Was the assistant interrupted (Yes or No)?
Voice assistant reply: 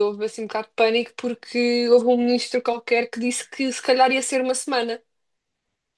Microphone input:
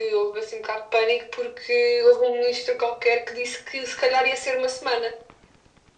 No